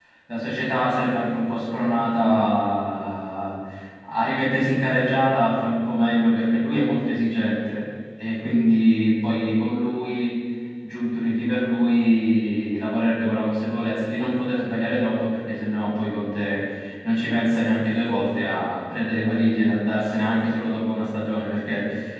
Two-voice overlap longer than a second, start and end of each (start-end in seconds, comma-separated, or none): none